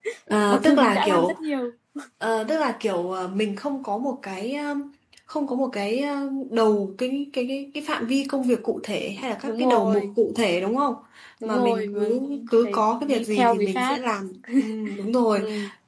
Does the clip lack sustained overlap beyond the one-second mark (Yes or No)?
No